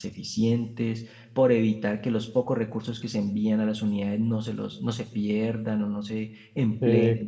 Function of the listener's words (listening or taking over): taking over